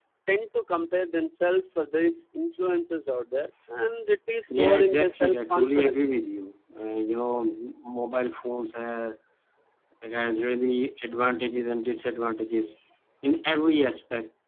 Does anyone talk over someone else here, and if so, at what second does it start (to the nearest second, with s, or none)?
5 s